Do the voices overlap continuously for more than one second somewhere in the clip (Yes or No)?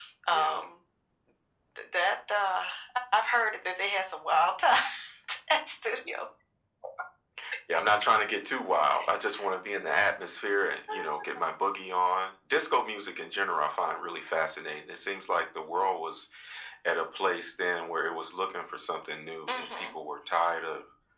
No